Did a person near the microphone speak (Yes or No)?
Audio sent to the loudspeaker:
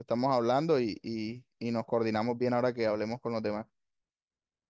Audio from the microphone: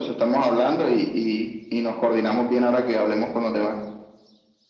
No